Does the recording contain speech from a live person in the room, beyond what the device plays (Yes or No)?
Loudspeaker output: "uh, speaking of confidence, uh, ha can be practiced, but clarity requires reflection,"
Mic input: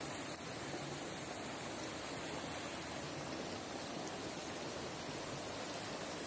No